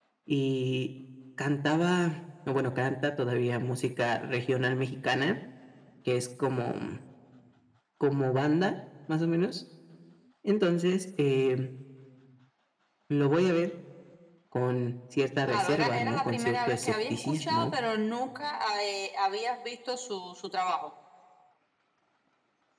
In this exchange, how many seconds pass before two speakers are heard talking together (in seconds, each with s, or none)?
15.4 s